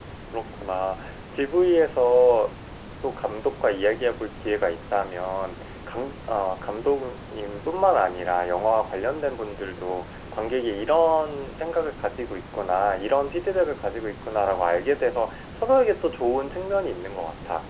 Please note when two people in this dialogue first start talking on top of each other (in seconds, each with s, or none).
none